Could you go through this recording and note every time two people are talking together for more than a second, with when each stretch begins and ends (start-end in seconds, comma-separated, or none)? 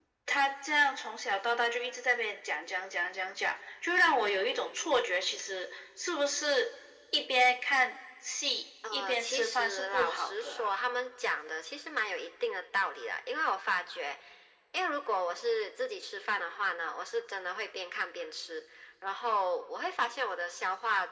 8.9-10.7